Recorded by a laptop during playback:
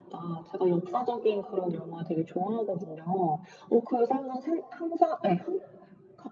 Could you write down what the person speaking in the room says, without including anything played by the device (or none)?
none